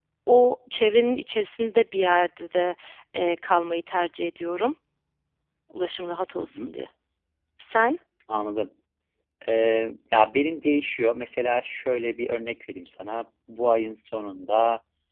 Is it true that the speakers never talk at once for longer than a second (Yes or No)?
Yes